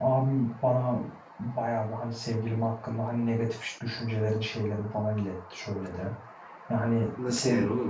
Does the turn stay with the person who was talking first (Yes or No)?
No